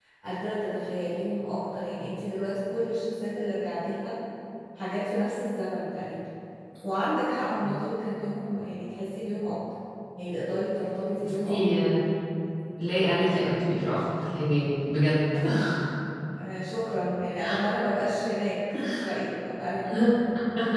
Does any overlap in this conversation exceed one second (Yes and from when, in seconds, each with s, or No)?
No